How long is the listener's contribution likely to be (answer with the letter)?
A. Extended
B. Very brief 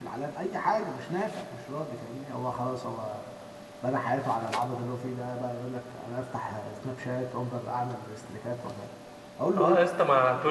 A